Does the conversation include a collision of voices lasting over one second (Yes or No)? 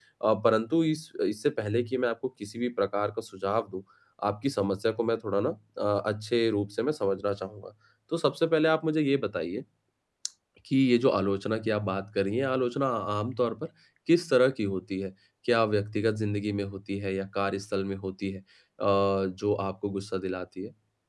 No